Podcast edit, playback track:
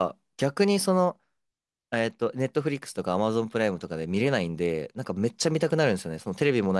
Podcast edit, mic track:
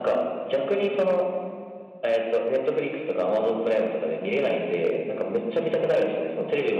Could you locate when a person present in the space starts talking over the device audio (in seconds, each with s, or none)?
none